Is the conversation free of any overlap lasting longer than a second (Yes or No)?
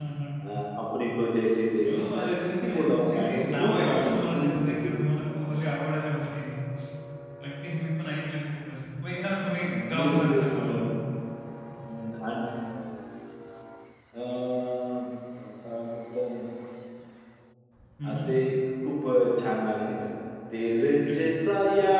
No